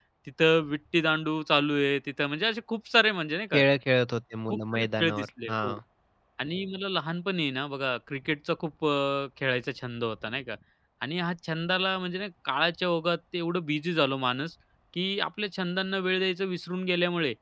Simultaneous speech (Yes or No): Yes